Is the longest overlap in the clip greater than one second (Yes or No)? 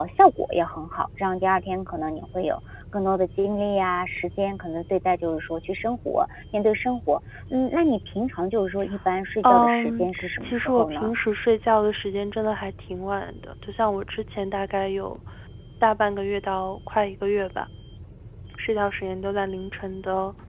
Yes